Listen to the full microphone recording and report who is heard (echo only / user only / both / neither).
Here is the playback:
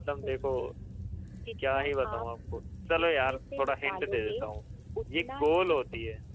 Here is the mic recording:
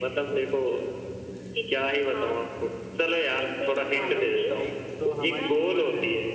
both